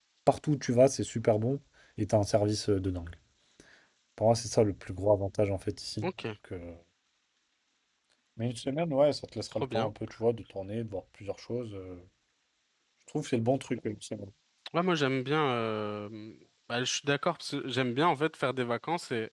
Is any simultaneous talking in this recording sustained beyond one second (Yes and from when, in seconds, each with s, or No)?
No